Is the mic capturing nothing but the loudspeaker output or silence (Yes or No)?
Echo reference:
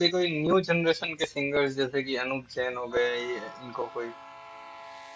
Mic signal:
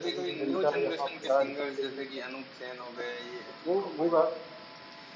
No